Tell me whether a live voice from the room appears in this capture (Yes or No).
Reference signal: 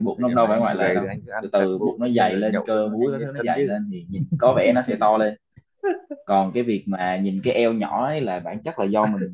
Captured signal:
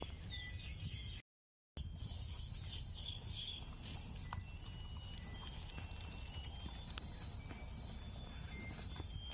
No